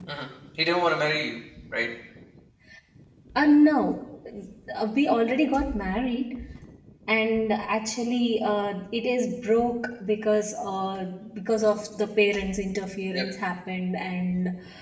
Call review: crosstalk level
none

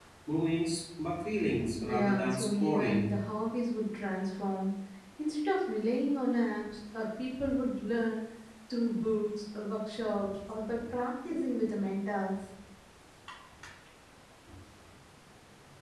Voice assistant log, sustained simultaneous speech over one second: present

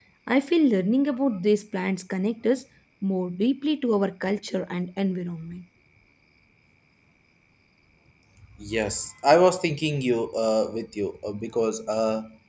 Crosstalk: none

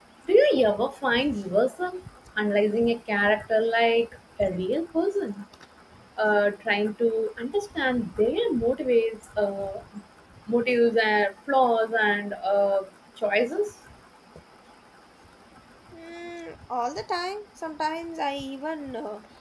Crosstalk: none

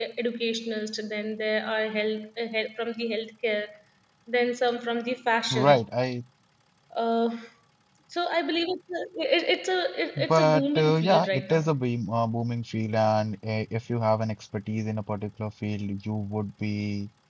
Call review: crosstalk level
present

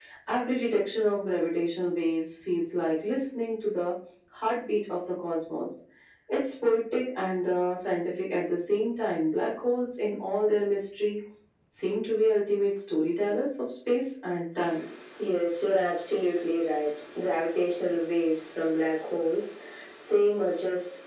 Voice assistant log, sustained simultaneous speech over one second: none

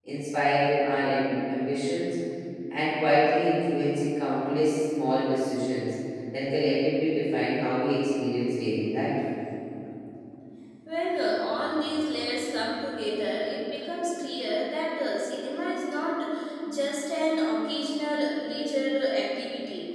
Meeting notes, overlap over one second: none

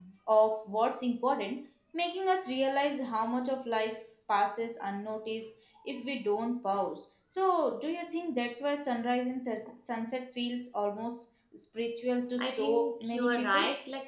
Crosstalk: present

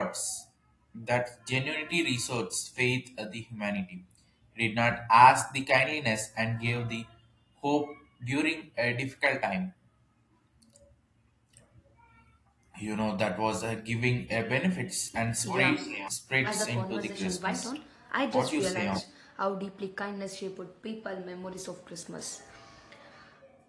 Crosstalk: present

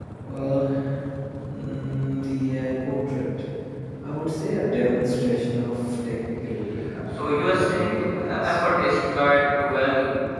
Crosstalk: present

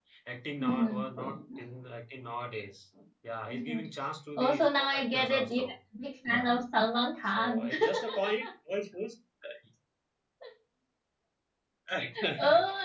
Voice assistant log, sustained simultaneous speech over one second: present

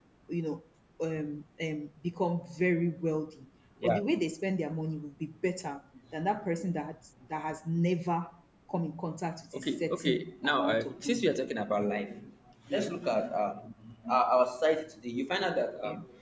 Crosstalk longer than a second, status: present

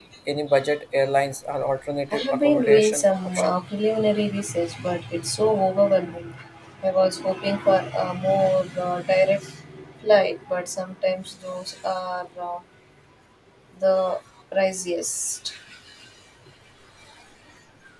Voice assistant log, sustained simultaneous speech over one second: present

